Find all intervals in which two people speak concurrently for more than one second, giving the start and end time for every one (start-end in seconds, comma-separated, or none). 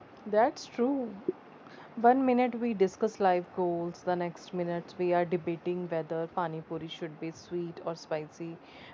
none